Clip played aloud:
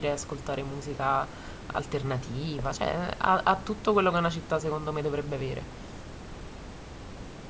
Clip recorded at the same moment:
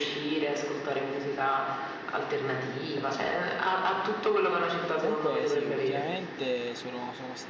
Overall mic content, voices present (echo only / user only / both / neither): both